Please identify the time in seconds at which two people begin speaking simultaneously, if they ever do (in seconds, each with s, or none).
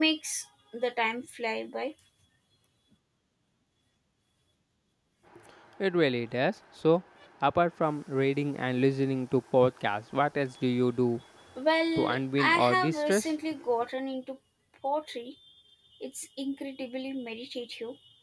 11.9 s